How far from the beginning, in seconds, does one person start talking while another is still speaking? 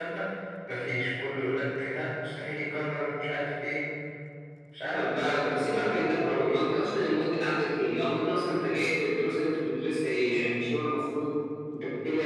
4.9 s

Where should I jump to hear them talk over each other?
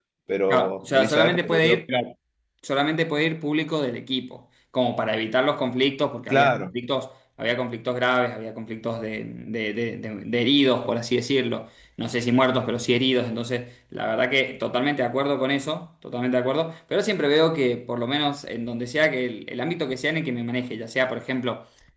0.5 s

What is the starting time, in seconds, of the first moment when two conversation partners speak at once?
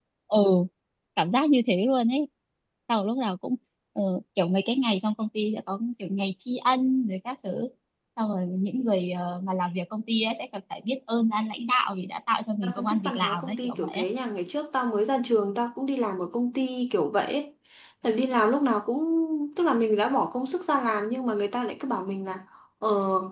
12.6 s

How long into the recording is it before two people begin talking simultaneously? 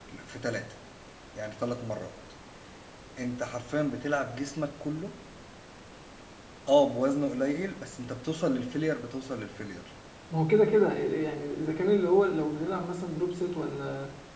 none

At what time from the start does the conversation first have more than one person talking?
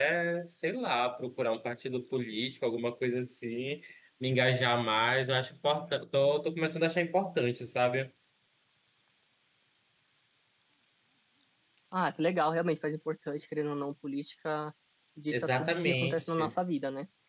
15.3 s

